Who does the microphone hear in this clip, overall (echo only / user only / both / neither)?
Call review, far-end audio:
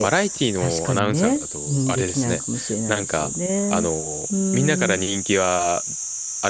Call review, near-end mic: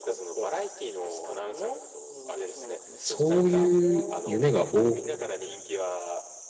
both